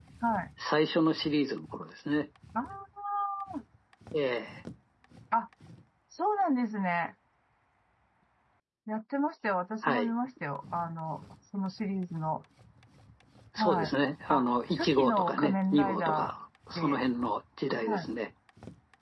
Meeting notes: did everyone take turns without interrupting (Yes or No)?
No